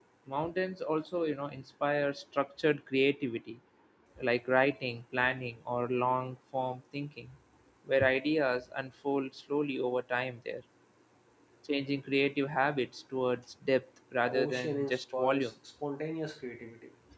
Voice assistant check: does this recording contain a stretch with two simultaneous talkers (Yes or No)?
Yes